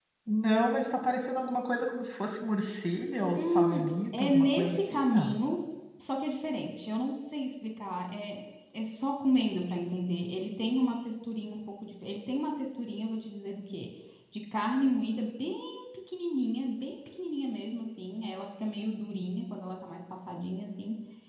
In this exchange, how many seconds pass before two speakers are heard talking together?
3.4 s

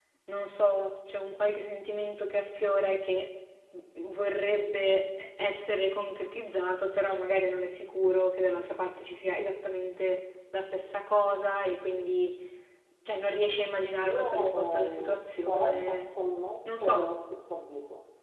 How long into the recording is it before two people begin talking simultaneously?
14.0 s

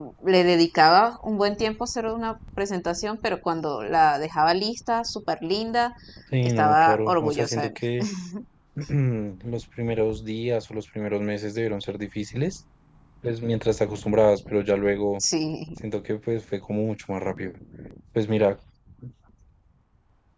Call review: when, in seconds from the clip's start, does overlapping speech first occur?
6.4 s

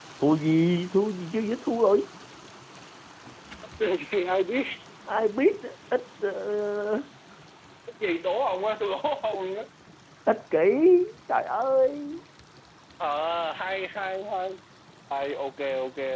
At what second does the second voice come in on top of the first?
none

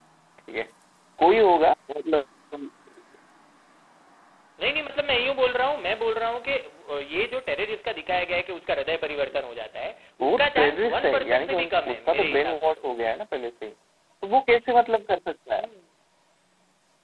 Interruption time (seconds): 10.2 s

